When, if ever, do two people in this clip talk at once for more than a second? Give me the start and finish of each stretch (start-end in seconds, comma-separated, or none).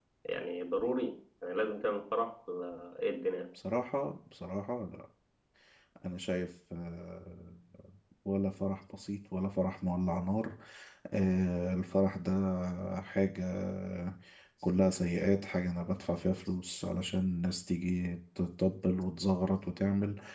none